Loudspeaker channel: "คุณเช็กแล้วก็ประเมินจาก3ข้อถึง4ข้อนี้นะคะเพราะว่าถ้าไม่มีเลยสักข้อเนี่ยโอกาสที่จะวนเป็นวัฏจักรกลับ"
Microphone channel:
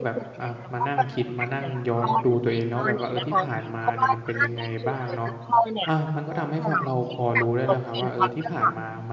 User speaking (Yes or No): Yes